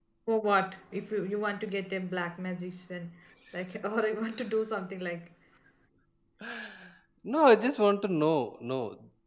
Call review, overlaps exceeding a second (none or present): none